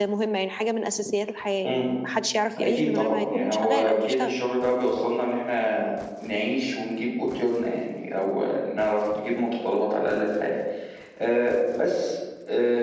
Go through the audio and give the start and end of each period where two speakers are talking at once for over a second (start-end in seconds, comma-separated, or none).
2.6-4.3